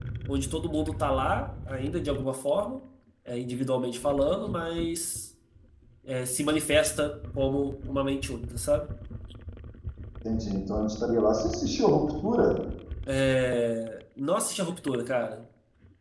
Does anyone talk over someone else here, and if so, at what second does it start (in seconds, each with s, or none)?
none